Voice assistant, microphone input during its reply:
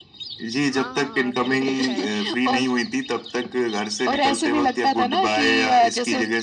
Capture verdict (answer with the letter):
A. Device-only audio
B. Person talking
B